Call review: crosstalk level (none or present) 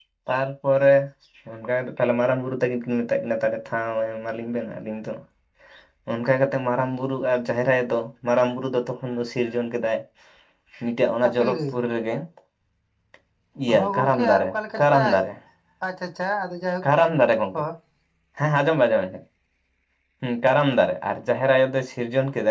present